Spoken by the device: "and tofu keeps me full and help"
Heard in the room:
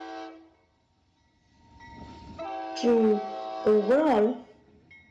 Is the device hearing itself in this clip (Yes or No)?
No